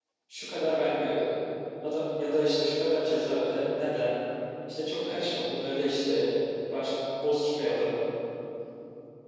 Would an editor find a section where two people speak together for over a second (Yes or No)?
No